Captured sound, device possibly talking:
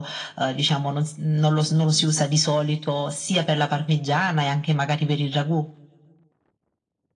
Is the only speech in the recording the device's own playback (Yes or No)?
Yes